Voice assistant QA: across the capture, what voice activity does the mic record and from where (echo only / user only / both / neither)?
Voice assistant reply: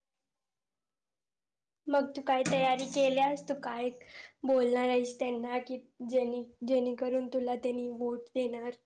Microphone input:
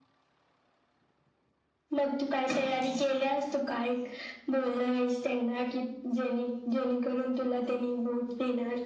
echo only